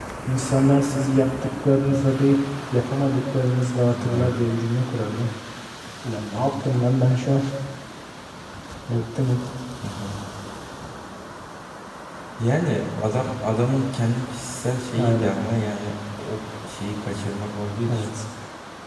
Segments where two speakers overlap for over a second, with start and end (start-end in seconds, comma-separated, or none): none